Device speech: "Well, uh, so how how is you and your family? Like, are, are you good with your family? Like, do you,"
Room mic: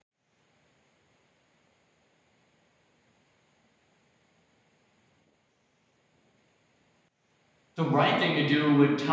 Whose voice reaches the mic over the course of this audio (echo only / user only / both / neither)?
user only